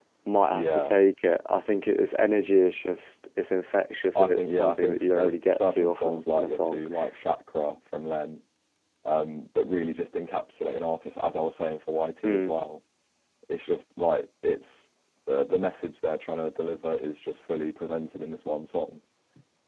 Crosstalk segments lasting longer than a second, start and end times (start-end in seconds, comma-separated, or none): 4.2-6.8